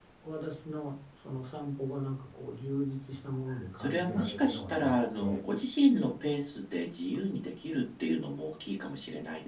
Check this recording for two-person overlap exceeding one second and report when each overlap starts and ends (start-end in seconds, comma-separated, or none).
3.8-5.4